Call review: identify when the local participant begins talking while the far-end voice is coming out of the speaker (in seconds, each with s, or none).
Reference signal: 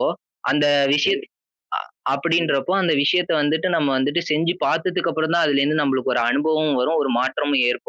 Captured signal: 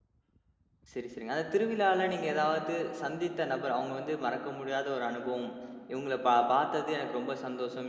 0.9 s